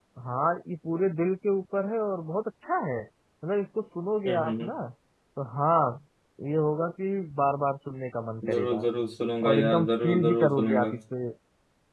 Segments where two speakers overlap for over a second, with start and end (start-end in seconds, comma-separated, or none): 9.5-10.9